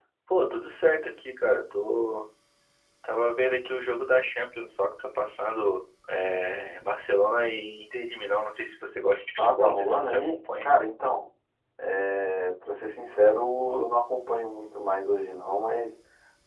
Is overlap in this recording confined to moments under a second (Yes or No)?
No